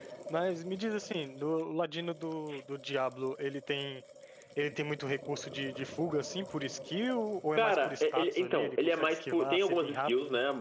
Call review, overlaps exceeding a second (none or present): present